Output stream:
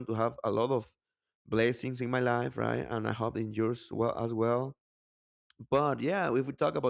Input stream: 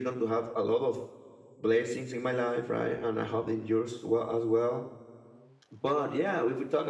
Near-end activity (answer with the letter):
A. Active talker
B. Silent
B